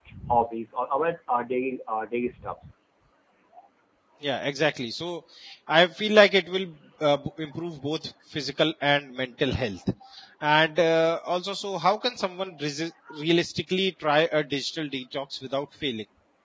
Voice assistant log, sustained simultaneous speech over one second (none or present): none